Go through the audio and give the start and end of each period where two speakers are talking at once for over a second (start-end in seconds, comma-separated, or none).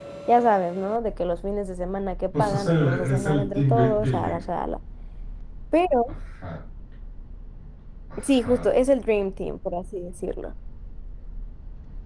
2.4-4.4